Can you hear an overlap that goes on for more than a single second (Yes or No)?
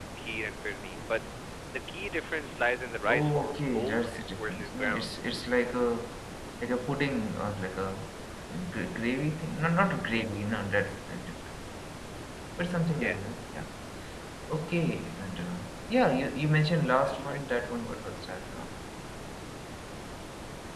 Yes